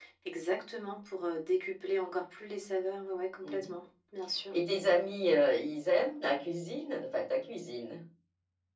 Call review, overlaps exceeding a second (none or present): none